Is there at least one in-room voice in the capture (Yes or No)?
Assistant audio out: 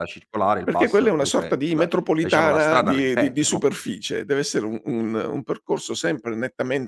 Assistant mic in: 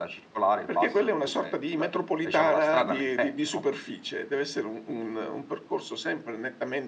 No